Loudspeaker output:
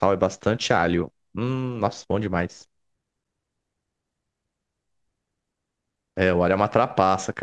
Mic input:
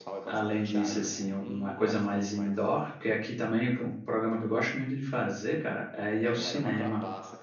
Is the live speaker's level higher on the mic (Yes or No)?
Yes